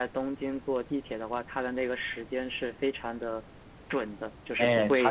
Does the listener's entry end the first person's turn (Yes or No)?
Yes